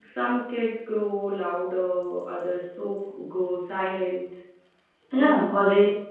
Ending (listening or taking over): taking over